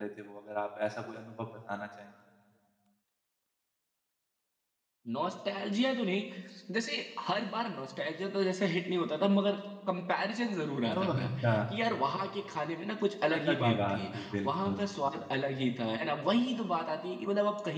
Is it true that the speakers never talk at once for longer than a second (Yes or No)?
No